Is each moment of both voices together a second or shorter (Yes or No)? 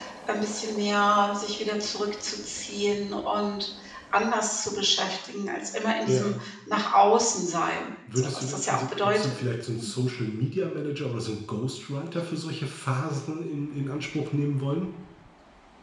No